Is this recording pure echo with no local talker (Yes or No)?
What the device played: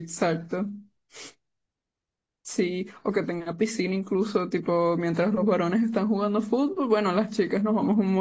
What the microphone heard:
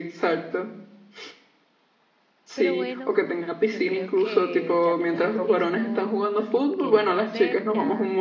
No